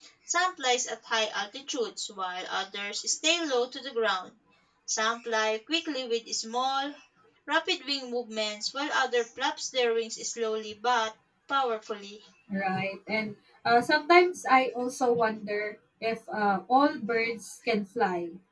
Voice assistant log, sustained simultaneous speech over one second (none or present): none